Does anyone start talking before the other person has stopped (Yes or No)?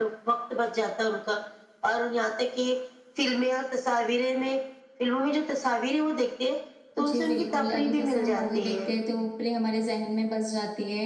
Yes